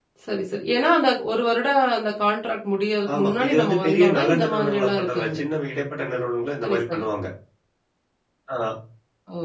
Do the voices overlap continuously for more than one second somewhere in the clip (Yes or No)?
Yes